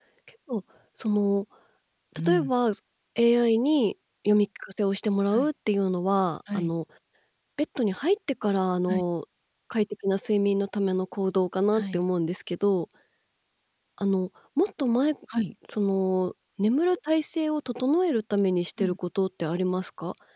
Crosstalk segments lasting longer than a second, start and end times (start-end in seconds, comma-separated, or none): none